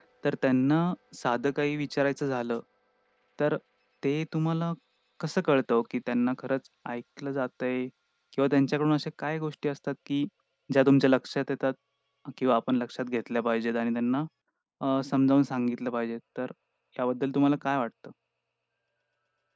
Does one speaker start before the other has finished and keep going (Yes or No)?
No